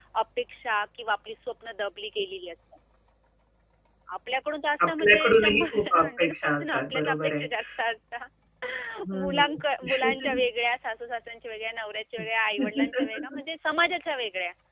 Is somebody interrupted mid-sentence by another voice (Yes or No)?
Yes